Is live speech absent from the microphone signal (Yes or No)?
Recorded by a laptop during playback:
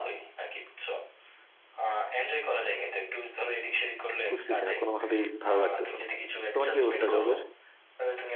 No